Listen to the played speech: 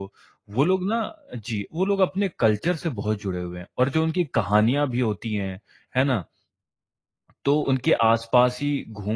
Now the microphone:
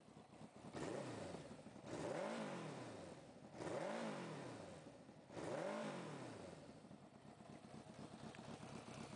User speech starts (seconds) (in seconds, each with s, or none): none